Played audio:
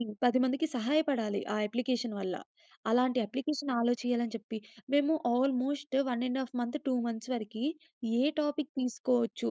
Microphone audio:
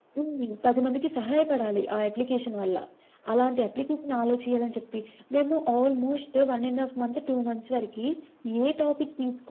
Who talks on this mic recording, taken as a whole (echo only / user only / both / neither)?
echo only